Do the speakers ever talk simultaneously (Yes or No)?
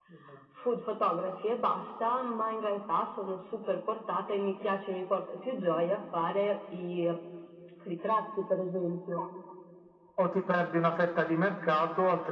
No